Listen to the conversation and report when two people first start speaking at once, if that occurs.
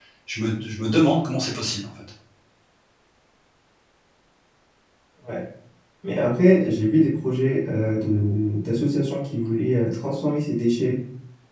none

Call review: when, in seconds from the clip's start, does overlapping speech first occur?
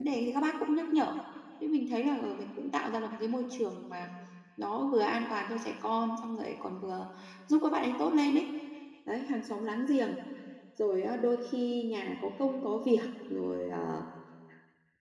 none

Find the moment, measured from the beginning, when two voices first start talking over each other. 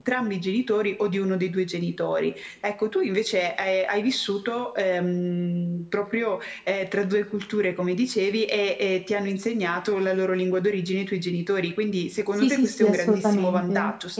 12.4 s

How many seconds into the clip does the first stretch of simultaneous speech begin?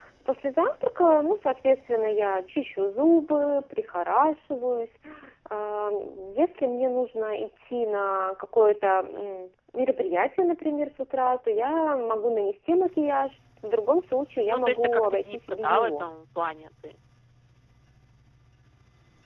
14.5 s

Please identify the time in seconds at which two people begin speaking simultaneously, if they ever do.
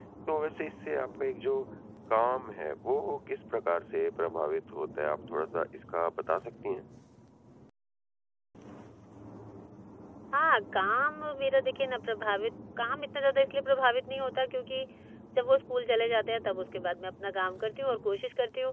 none

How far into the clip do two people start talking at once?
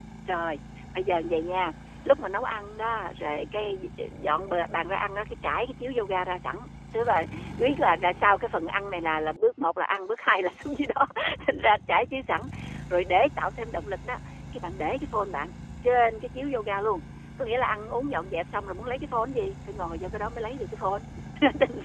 none

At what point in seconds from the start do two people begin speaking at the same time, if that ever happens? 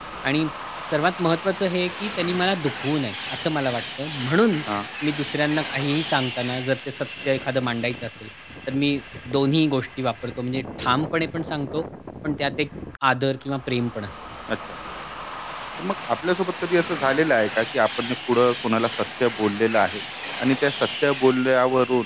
none

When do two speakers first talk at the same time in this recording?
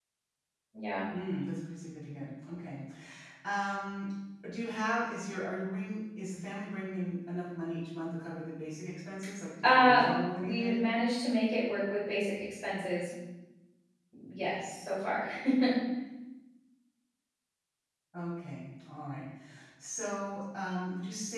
9.6 s

